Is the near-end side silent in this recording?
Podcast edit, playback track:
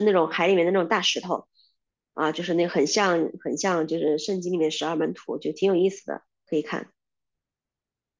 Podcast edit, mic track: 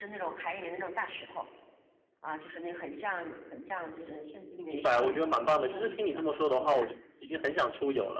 No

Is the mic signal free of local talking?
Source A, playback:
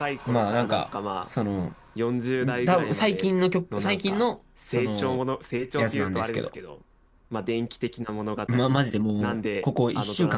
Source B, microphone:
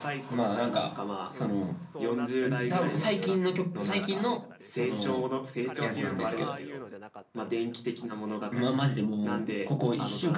No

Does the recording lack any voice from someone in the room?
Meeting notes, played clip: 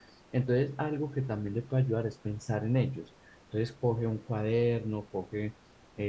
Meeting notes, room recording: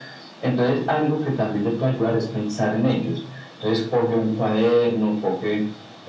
Yes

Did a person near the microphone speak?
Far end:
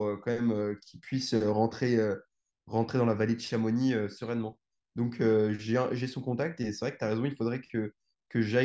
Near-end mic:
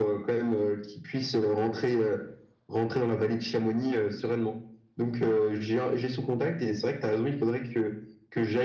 No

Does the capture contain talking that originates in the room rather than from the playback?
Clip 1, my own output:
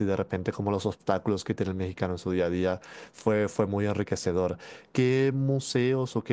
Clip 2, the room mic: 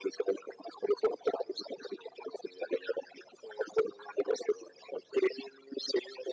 No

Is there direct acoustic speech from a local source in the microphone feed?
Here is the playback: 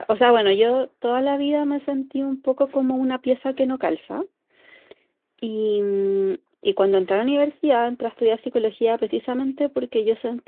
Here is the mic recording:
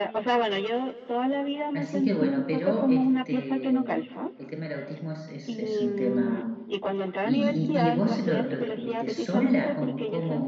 Yes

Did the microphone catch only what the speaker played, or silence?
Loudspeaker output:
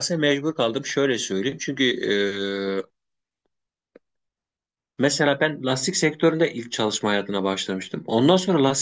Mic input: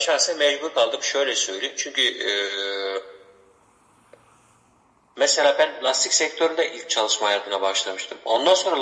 Yes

